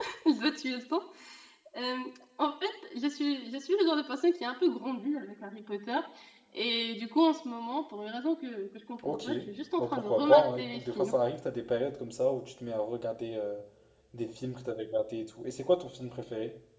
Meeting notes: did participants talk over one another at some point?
Yes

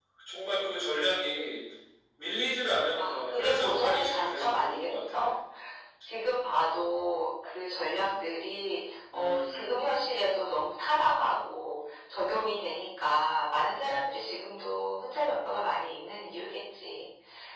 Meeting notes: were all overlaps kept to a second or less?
No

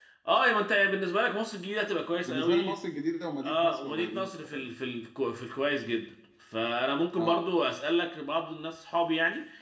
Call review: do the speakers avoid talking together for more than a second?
No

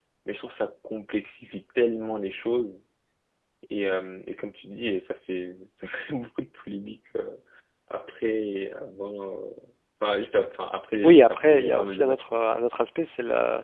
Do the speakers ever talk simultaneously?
Yes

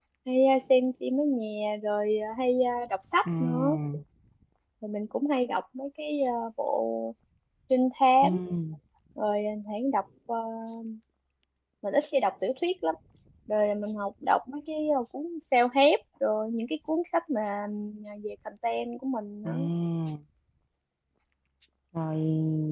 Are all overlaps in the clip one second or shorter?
Yes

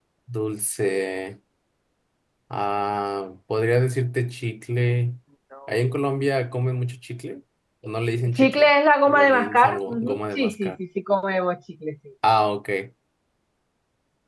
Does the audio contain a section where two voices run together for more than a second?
Yes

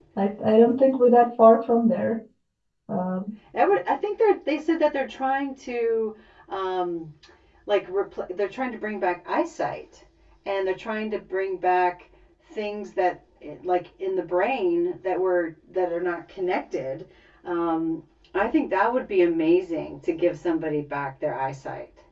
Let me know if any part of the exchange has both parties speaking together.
No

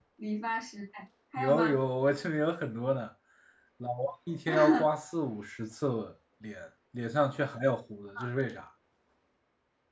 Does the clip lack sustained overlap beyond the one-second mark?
Yes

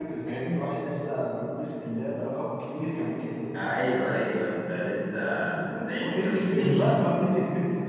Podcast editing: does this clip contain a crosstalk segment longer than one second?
Yes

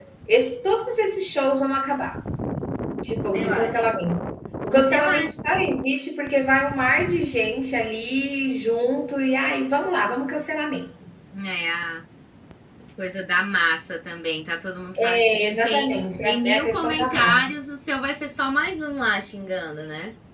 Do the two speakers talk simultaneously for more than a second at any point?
Yes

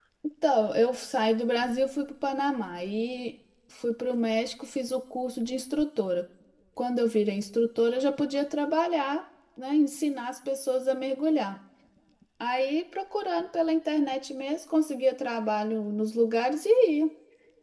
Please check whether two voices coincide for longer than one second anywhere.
No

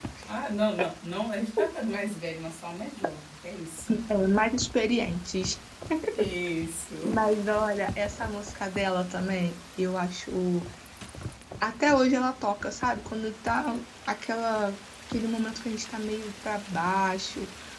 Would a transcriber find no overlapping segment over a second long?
Yes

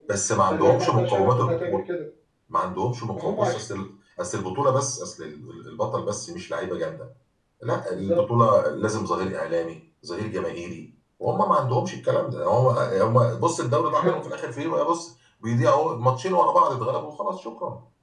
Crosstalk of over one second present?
Yes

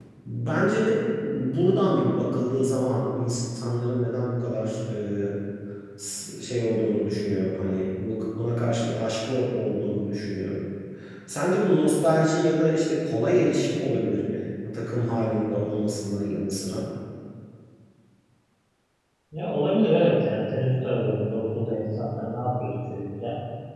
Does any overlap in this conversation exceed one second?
No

